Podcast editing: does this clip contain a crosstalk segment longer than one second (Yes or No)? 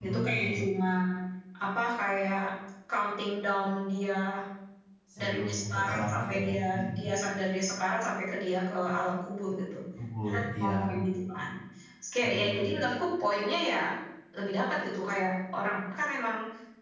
Yes